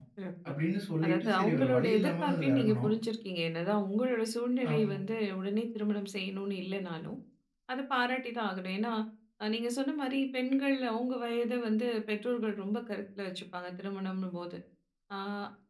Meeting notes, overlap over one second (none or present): present